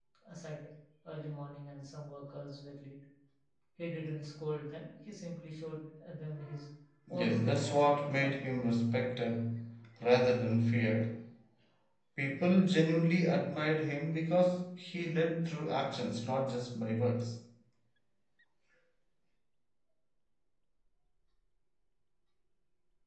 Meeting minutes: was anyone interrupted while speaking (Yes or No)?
Yes